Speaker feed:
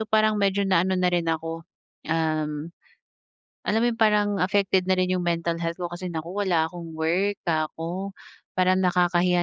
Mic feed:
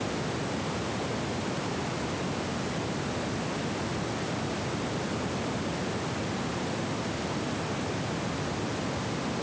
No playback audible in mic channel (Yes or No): Yes